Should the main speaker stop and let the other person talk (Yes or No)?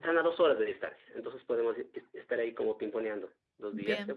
No